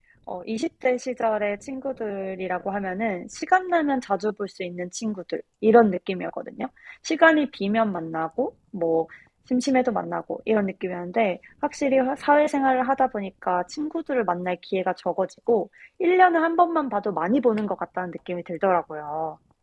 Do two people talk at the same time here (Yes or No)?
No